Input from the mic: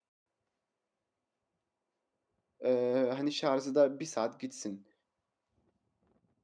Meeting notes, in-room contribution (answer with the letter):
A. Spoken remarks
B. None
A